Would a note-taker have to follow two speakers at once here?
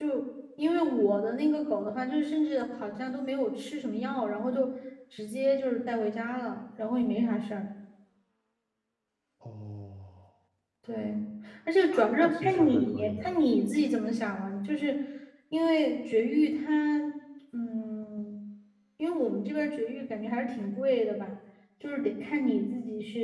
Yes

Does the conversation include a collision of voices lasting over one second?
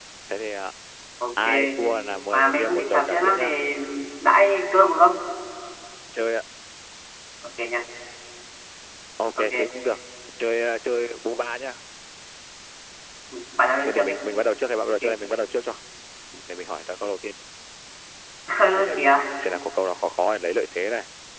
Yes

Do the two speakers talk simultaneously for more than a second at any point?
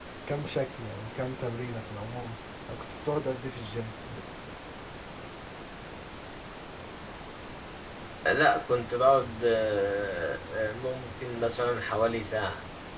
No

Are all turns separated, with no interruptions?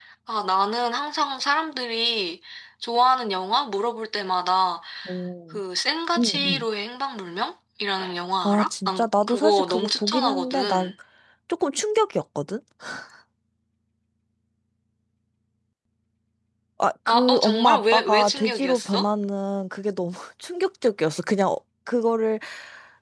No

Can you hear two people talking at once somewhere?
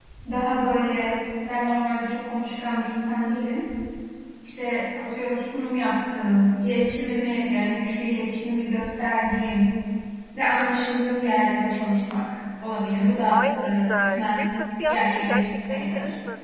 Yes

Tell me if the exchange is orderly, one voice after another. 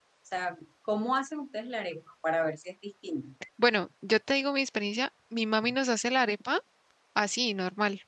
Yes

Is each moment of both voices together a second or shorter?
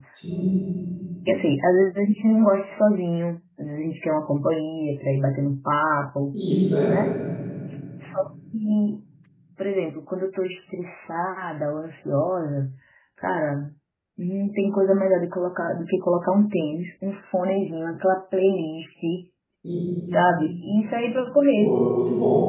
Yes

